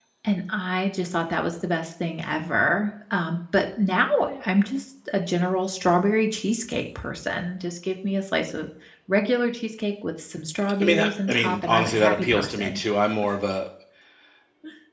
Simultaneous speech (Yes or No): Yes